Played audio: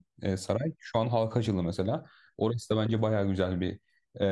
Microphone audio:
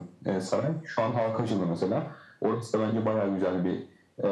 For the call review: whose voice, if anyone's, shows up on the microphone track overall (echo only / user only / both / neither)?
echo only